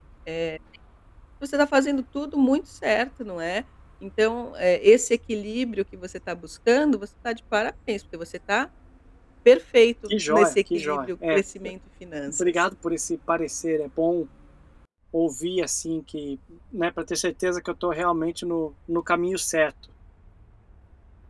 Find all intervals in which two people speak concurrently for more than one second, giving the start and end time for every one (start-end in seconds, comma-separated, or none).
10.1-11.4